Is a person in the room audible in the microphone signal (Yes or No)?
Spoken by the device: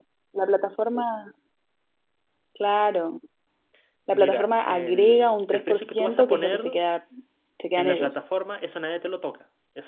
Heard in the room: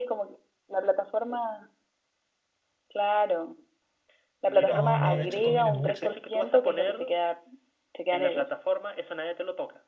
Yes